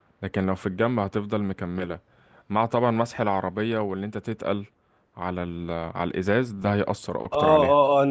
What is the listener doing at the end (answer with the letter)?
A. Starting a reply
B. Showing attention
A